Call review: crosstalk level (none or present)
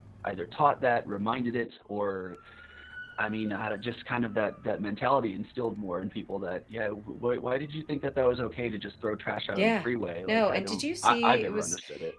present